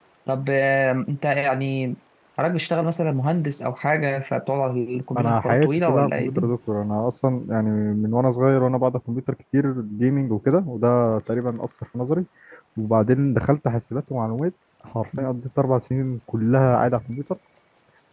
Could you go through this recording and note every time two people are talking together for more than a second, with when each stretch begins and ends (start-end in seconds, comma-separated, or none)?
5.1-6.5